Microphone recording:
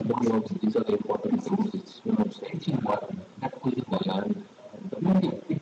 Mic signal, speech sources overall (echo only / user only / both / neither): echo only